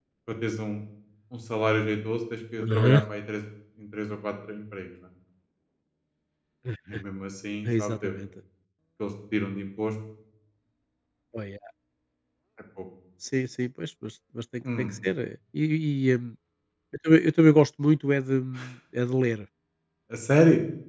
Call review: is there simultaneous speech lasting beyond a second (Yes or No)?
No